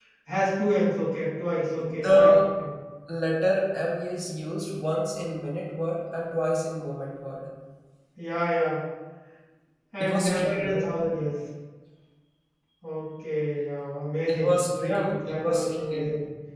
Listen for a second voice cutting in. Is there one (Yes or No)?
Yes